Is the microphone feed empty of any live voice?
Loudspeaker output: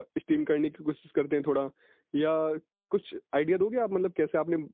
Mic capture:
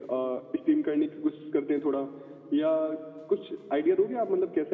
Yes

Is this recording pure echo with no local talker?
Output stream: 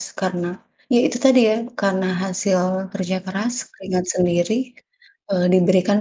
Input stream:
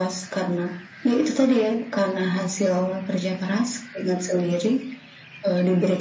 Yes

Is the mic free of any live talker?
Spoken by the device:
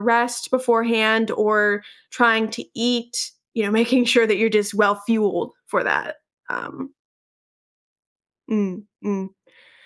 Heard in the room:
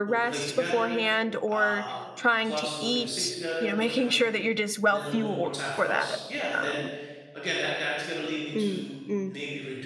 No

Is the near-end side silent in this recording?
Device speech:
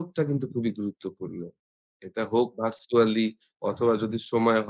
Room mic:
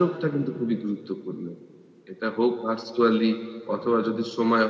Yes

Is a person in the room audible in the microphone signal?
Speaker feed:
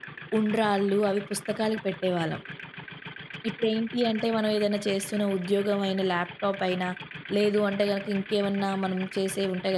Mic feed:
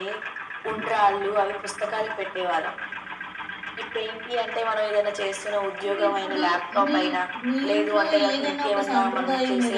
Yes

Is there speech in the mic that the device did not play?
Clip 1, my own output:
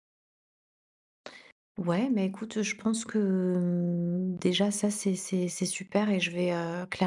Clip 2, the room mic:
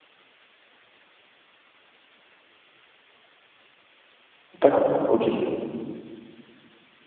Yes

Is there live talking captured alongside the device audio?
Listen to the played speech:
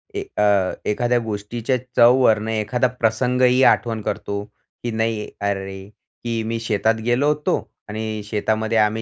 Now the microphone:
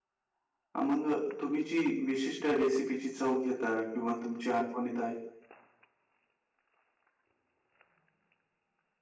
Yes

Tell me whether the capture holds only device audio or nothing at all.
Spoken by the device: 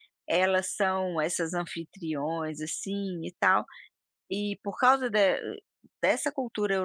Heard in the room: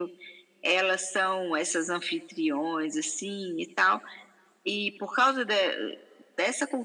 Yes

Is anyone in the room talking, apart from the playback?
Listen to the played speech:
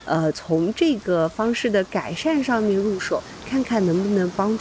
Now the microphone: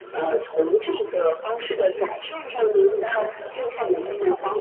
Yes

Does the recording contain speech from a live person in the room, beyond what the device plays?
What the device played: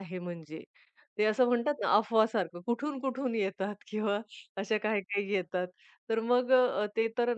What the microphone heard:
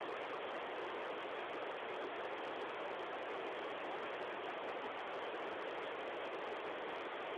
No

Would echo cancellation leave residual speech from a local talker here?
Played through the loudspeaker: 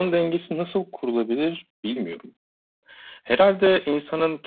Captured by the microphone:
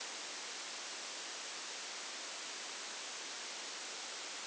No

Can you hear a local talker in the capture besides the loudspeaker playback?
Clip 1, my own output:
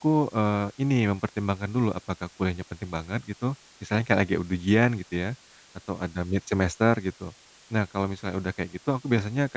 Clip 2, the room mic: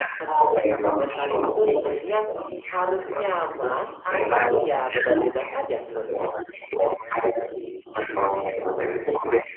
Yes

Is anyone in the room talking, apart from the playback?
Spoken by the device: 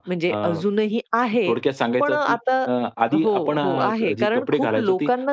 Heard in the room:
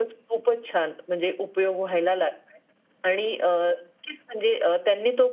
Yes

